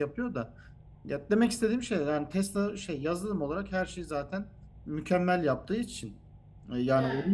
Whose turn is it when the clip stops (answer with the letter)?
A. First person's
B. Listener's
A